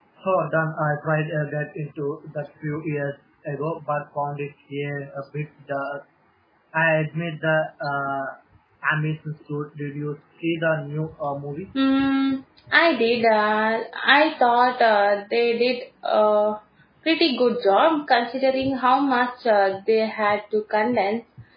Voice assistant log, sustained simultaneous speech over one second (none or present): none